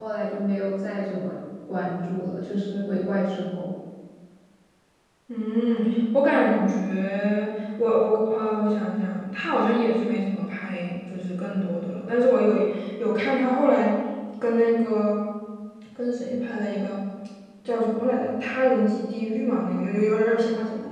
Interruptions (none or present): none